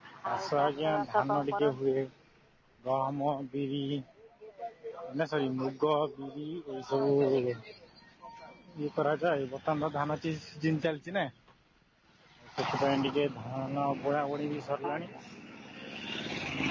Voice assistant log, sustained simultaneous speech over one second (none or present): present